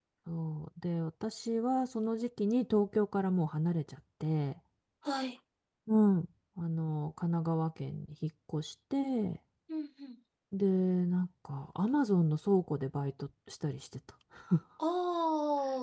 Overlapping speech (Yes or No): No